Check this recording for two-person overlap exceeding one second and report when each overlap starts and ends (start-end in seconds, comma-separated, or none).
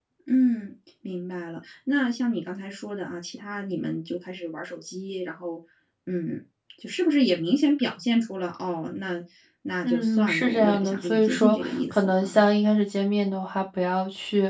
9.8-12.4